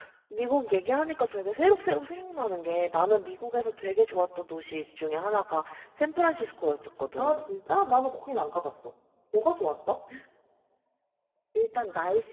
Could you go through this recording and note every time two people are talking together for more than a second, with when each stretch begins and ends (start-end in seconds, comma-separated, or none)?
none